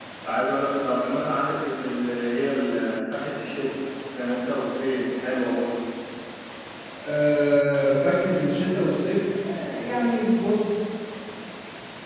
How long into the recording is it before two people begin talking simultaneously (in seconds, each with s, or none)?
none